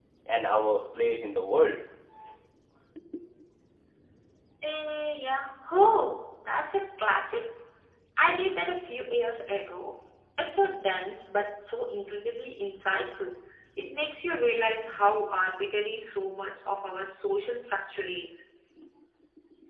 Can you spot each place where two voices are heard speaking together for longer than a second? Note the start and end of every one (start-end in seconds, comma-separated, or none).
none